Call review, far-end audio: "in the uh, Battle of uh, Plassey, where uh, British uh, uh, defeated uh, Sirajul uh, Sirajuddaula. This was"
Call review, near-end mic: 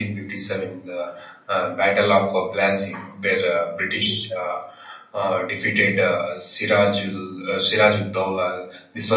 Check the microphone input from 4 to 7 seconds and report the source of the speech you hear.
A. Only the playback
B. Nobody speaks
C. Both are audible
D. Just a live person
A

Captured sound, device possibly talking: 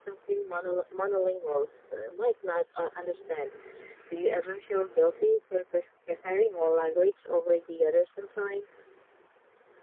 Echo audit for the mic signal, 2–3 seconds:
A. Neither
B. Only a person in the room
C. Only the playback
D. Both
C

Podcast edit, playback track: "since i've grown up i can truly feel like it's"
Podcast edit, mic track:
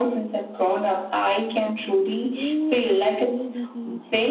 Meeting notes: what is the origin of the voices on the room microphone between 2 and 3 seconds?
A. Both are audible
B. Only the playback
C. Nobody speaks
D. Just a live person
A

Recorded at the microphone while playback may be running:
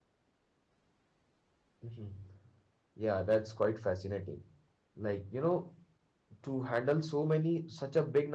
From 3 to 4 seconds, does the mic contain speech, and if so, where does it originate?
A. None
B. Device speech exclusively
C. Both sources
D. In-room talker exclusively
D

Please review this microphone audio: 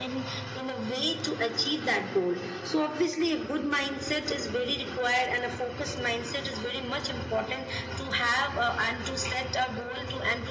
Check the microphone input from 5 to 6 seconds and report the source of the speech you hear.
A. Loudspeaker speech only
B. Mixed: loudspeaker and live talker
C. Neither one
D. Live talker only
A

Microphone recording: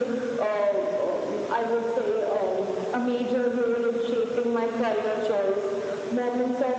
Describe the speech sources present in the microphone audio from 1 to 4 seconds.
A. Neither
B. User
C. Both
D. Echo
D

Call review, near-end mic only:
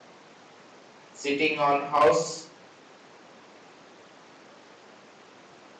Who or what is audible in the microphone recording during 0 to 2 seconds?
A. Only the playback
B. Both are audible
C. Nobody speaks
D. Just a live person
D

